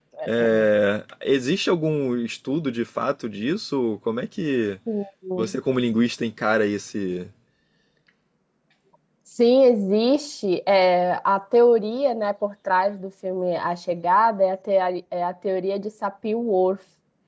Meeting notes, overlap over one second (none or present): none